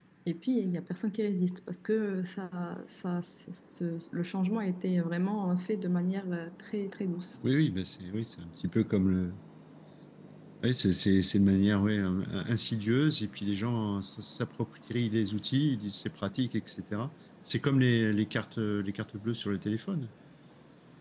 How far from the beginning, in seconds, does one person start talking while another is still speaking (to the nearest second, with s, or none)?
none